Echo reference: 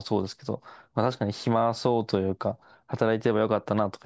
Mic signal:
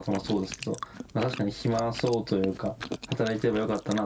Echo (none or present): present